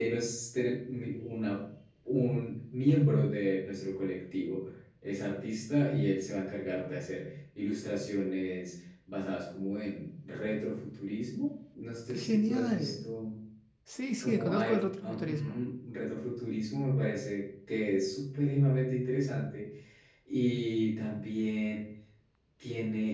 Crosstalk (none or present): present